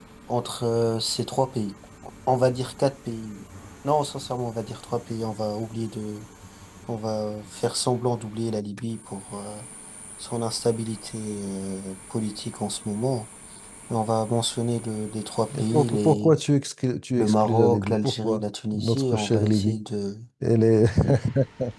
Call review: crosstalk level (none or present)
present